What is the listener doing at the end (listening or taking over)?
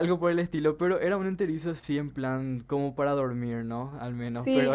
taking over